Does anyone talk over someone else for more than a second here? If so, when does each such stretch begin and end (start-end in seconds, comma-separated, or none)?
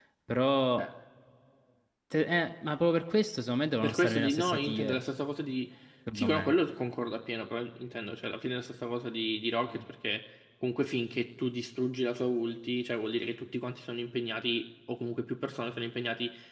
3.8-5.0